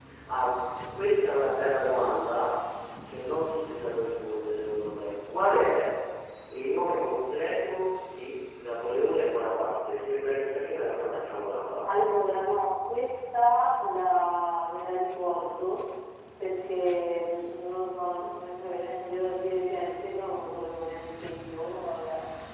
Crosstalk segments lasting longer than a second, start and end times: none

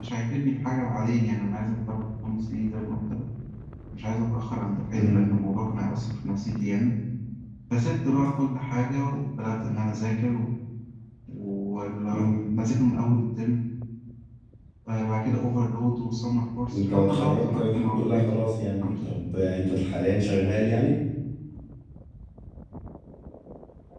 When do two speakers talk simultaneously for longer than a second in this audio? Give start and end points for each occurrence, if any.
16.7-18.3

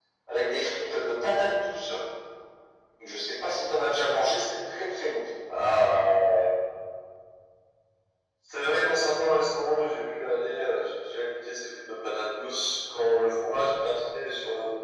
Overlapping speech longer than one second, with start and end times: none

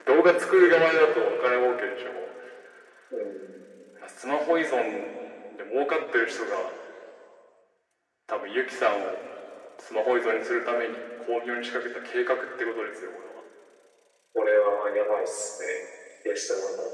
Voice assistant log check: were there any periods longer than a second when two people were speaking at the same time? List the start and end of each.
none

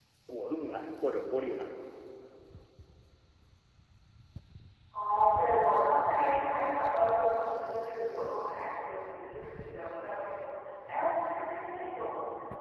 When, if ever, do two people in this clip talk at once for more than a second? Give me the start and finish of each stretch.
none

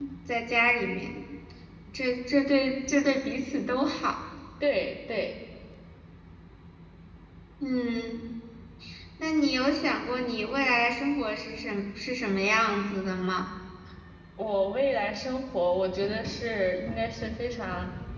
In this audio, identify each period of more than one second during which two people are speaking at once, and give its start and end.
none

